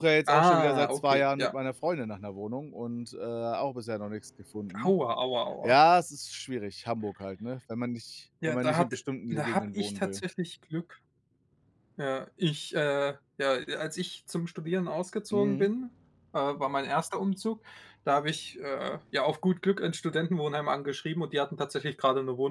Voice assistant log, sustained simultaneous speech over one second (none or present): present